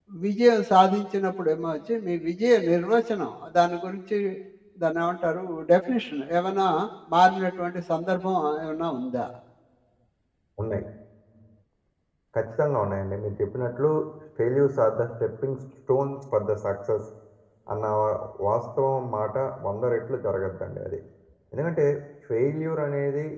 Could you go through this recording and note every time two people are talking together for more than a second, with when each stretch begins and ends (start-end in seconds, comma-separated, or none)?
none